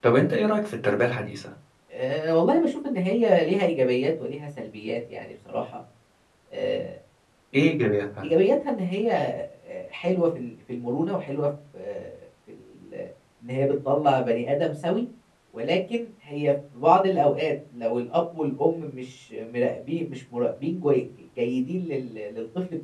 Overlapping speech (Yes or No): No